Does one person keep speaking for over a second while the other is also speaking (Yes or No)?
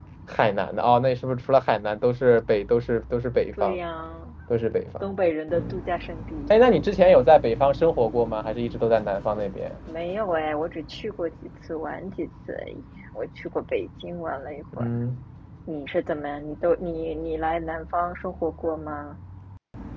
No